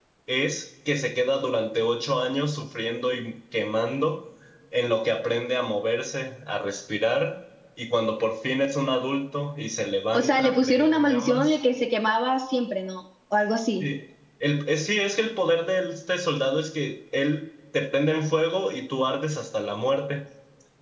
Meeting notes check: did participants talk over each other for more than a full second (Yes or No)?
Yes